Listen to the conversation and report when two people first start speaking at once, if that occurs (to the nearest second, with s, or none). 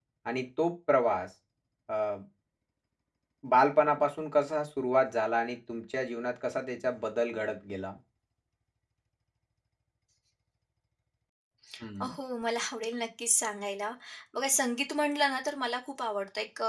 none